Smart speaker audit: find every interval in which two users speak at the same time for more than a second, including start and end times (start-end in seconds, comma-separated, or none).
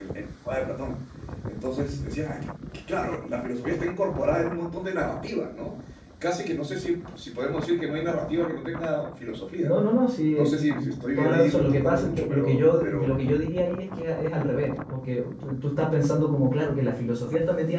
11.2-13.1